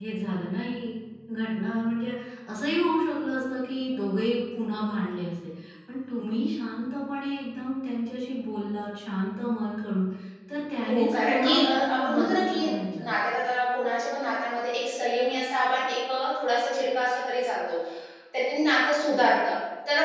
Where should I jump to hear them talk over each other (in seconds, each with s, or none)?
10.8 s